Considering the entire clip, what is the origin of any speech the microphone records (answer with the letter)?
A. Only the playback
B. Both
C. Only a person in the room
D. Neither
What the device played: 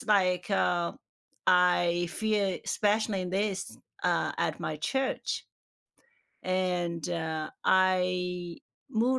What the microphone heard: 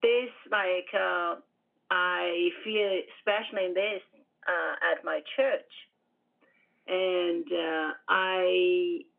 A